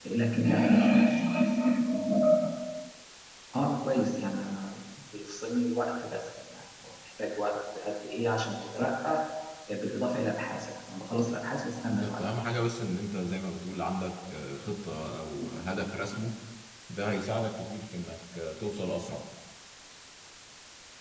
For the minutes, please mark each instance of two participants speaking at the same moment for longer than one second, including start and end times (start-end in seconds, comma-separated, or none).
none